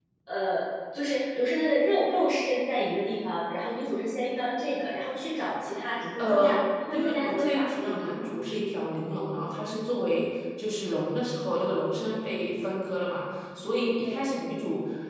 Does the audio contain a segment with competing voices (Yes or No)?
Yes